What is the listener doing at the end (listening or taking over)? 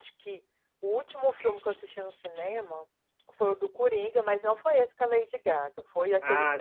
taking over